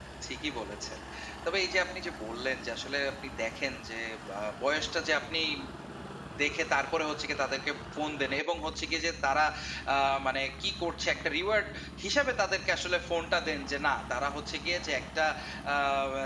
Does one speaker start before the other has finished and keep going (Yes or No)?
No